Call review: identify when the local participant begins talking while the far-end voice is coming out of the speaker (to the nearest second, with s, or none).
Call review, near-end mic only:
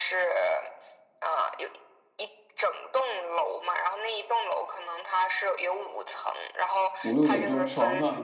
7 s